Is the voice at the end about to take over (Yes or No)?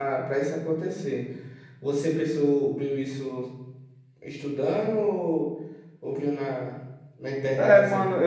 Yes